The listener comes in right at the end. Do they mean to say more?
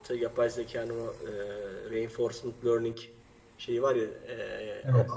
No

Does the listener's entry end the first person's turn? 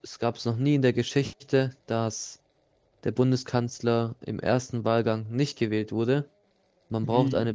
No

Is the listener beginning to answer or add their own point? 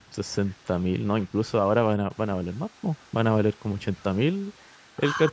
Yes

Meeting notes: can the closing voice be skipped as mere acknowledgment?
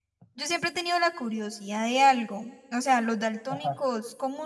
Yes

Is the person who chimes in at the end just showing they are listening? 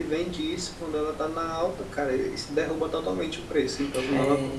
No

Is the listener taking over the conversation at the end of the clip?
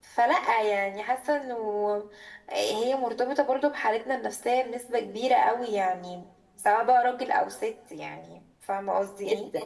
Yes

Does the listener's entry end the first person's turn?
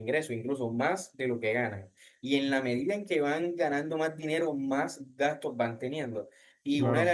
No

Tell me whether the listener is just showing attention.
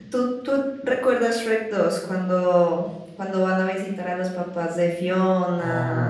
No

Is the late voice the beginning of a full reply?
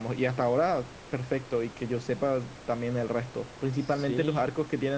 No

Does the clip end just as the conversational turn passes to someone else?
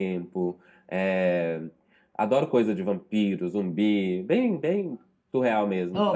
Yes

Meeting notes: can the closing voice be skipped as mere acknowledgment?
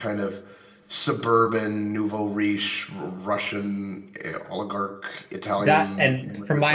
No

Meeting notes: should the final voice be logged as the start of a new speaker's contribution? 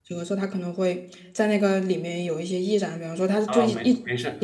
Yes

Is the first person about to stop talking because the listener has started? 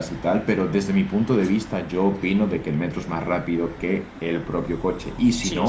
Yes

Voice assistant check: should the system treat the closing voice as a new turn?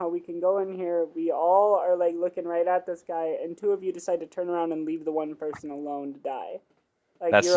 No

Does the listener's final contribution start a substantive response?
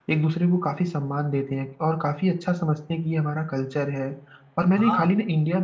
No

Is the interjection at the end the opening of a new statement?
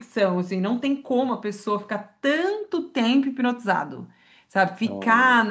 No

